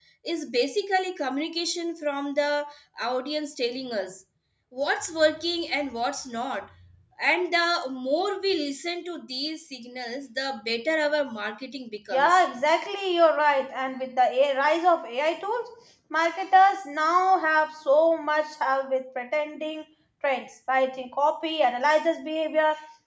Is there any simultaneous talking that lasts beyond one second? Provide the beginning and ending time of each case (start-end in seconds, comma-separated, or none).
none